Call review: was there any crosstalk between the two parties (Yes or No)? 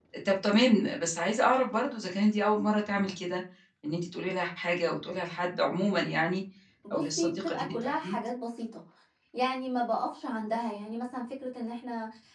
Yes